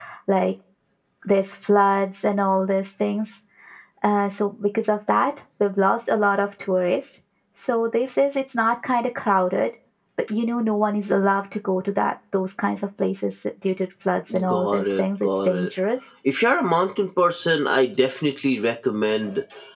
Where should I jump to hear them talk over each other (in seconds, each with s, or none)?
14.3 s